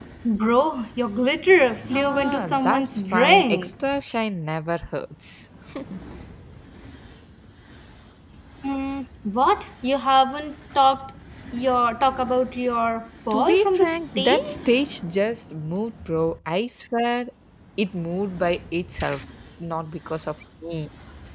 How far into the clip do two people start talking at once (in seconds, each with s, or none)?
1.9 s